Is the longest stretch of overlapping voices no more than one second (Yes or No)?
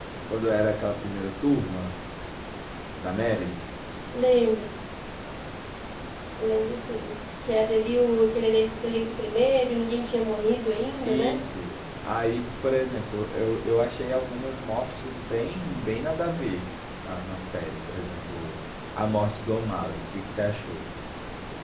Yes